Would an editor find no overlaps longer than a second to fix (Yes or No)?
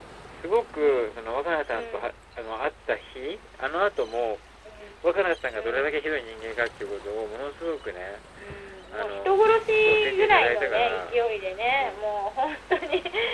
No